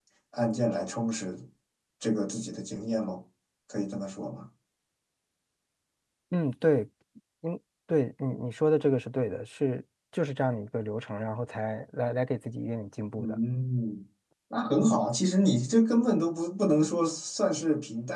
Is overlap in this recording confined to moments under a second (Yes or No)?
Yes